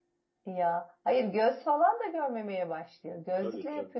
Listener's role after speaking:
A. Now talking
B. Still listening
B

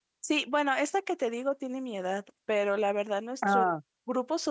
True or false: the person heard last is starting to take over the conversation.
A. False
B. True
A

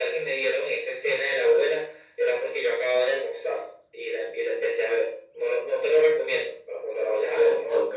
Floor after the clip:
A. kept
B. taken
B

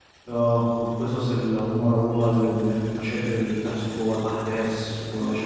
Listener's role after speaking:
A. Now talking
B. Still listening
B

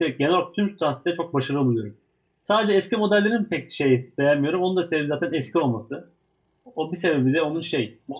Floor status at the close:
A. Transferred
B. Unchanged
B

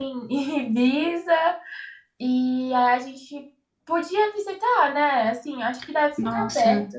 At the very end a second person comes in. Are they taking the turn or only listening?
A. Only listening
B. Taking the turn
B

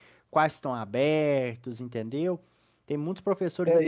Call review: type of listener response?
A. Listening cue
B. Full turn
B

